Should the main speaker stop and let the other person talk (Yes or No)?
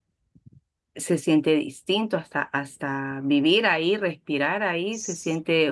No